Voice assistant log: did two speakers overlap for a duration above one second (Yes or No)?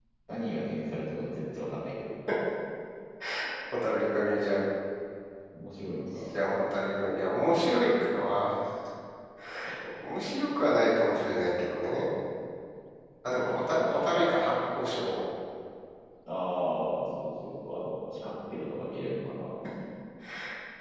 Yes